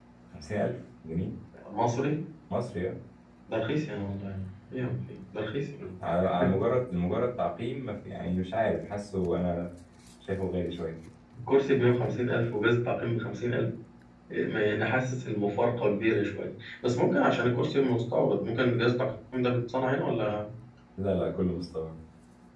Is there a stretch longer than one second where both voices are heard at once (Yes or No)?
No